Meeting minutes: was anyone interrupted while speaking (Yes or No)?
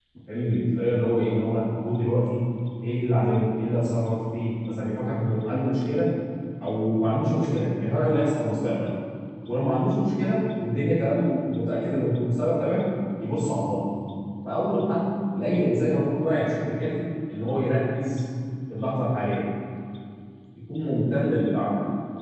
No